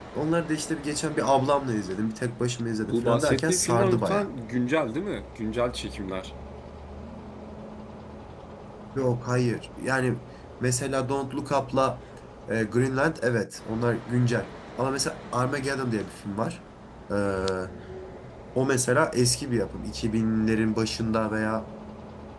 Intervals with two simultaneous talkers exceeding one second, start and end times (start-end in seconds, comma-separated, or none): 2.9-4.2